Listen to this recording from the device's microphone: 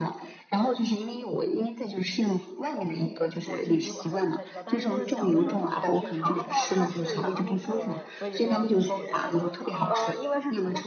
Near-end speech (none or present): present